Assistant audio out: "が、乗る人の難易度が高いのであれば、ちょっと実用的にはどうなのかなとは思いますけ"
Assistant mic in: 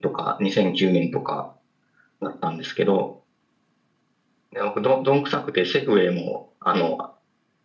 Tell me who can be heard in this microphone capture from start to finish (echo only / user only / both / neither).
user only